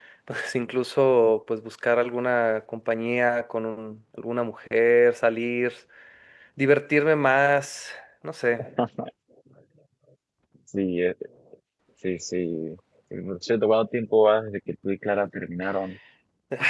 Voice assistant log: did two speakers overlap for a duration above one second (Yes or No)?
No